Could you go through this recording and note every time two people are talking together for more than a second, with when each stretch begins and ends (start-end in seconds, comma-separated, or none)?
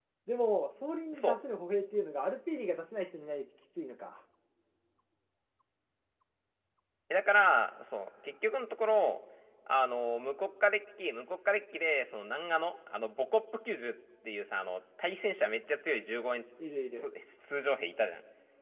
none